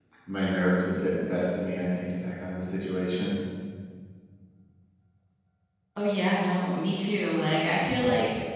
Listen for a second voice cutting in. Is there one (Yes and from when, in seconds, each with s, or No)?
No